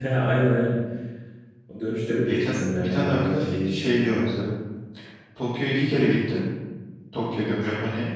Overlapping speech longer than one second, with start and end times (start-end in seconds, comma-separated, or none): 2.2-4.3